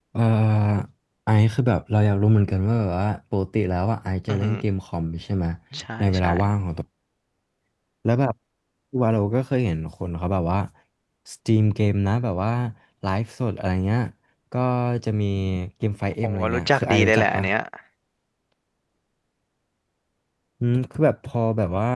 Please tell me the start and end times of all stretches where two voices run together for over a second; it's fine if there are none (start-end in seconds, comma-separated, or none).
16.2-17.4